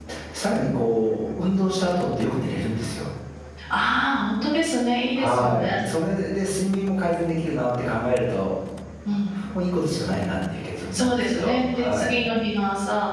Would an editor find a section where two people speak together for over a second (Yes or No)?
Yes